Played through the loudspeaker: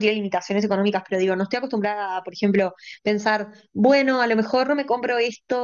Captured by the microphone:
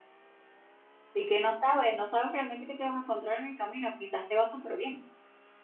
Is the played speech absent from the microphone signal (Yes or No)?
Yes